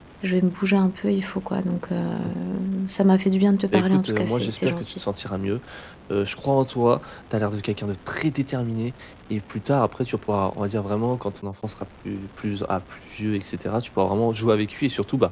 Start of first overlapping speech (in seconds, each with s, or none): 3.7 s